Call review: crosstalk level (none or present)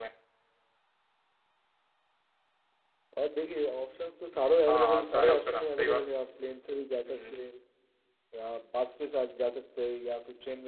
present